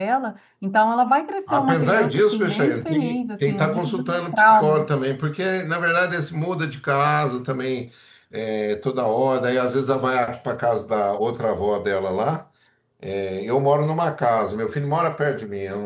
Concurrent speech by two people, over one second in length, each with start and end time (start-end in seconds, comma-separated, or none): 1.5-3.0, 3.4-4.9